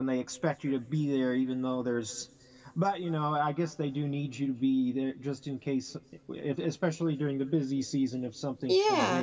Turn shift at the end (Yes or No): Yes